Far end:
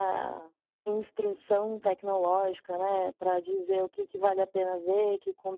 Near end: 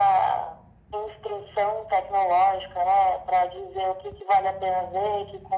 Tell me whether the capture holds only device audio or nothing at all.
Yes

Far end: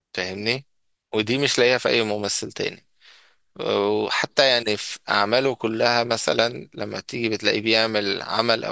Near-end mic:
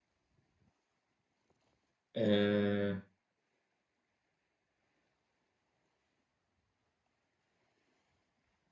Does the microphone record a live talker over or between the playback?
Yes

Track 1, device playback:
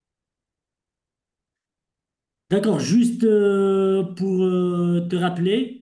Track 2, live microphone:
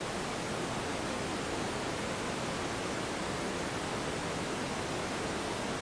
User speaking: No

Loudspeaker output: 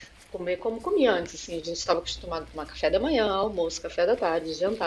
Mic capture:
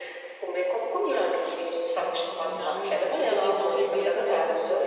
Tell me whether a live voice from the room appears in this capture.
Yes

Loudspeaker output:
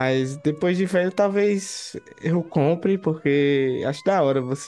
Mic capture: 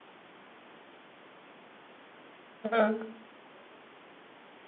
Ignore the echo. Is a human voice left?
Yes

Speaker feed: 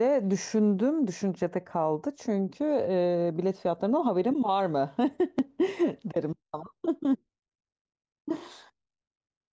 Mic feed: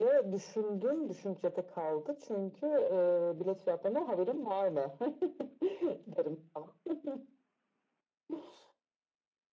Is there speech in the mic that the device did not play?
No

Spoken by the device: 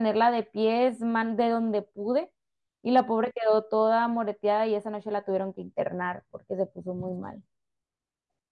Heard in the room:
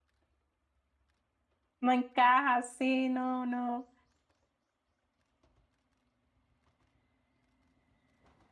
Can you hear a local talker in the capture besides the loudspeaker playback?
Yes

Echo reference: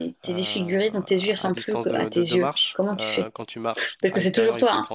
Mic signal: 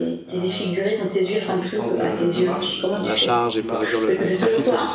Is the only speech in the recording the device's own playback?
No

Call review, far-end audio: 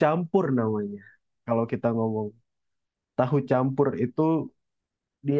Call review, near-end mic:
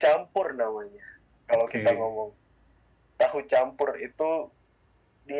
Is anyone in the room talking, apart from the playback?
Yes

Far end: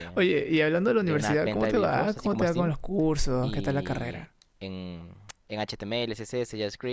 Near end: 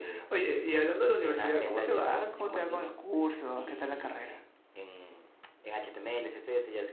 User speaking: No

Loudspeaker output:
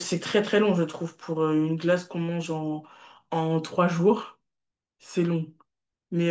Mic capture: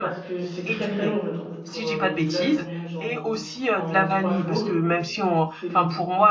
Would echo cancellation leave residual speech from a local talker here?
Yes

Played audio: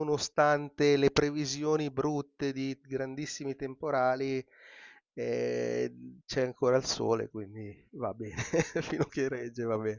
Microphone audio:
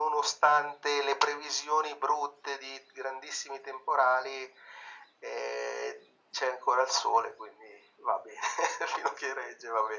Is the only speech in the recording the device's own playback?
Yes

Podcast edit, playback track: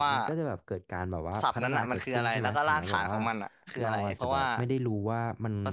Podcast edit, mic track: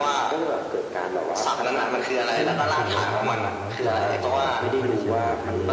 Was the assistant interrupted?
Yes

